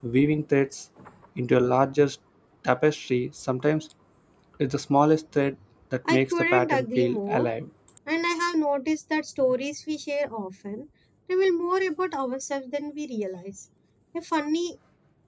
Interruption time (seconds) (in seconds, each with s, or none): 6.0 s